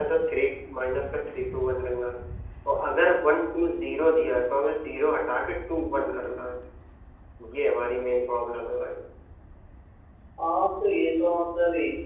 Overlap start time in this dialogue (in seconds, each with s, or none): none